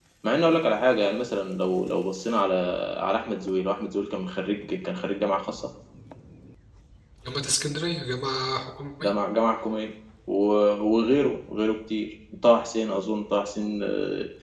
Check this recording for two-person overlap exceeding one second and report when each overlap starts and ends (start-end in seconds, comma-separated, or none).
none